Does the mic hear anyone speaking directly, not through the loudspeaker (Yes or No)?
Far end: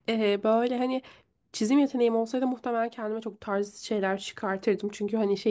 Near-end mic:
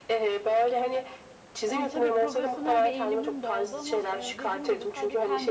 Yes